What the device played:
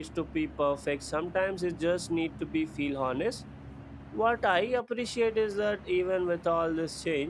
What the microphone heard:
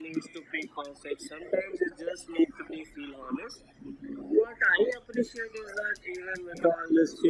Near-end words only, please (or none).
none